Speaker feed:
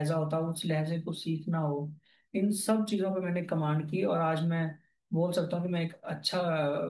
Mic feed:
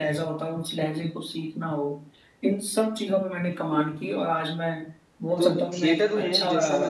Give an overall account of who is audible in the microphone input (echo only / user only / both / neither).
both